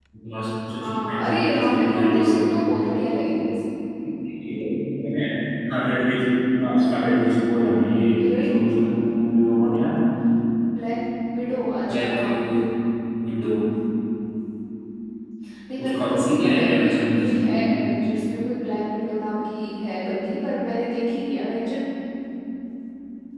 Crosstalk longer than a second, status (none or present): present